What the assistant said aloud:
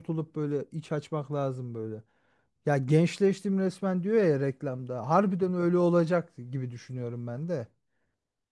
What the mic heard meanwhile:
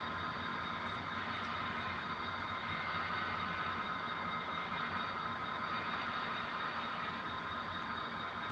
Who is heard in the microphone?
neither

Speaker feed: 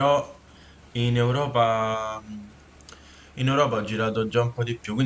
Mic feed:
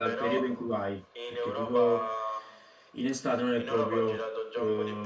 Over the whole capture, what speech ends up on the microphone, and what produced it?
both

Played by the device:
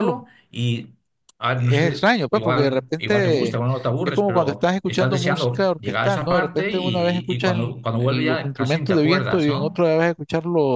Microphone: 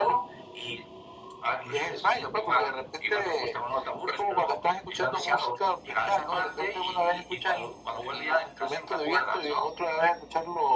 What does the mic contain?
echo only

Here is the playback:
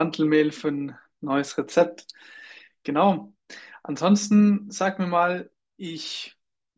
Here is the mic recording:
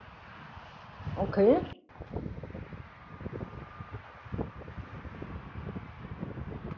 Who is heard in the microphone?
user only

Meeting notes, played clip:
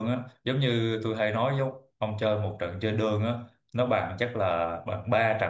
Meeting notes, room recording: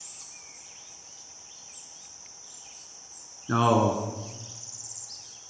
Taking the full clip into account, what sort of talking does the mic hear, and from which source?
user only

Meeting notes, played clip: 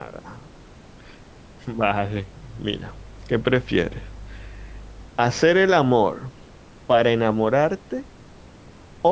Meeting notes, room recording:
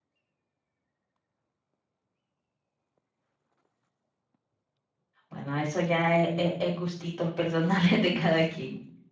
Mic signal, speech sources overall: user only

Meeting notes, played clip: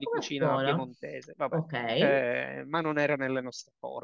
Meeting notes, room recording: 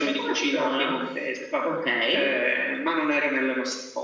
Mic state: echo only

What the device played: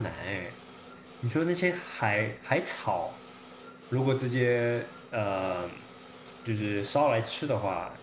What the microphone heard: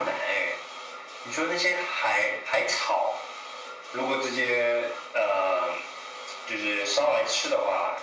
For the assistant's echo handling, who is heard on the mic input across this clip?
echo only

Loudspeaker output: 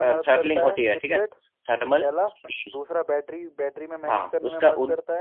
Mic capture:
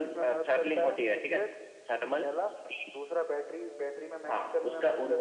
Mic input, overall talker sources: echo only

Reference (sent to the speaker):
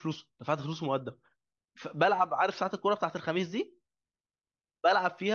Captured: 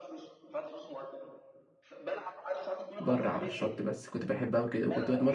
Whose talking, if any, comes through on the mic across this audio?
both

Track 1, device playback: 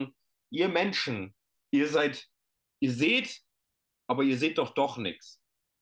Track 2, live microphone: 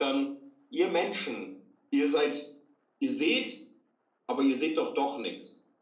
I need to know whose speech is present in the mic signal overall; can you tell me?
echo only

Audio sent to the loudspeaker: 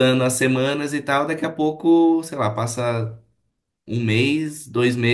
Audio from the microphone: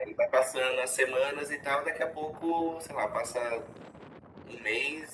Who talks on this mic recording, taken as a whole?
echo only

